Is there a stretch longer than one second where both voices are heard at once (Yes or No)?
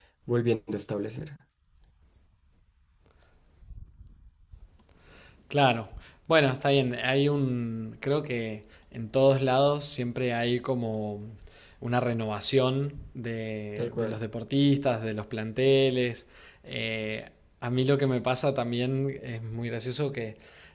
No